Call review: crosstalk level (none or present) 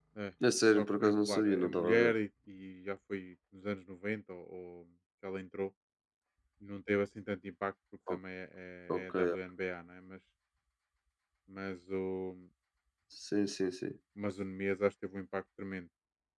present